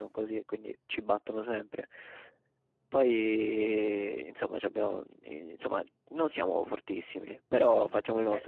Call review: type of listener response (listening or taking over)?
taking over